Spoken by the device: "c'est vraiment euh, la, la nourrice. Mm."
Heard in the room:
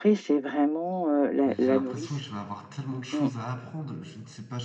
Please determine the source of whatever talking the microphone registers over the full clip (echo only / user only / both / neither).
both